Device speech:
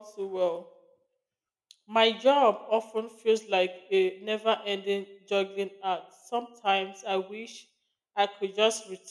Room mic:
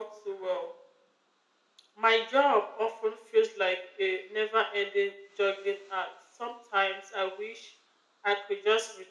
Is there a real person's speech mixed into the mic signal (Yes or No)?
No